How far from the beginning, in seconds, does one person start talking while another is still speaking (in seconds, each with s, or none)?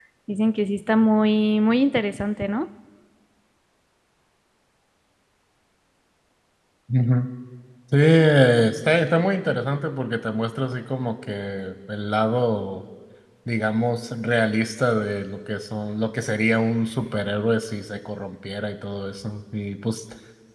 none